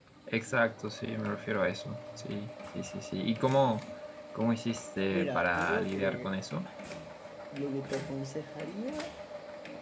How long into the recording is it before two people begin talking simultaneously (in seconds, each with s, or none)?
5.1 s